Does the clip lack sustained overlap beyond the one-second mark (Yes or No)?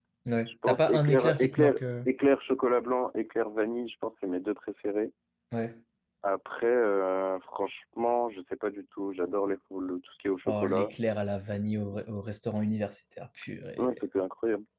No